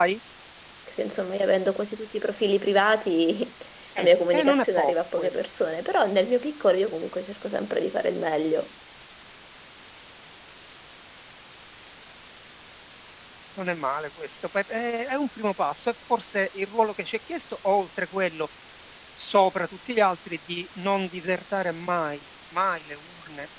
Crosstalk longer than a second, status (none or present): present